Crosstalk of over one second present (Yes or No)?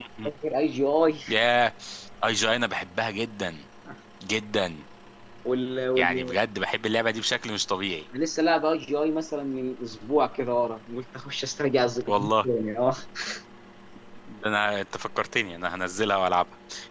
No